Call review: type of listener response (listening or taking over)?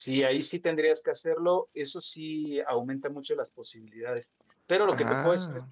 listening